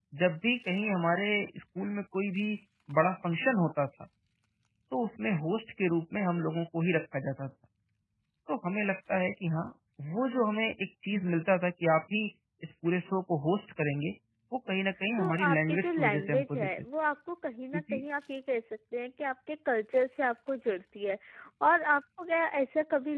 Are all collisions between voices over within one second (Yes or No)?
No